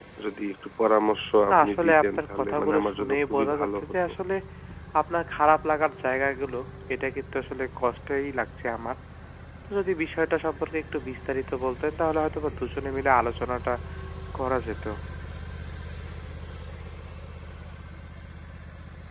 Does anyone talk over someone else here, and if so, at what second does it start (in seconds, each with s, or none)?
1.5 s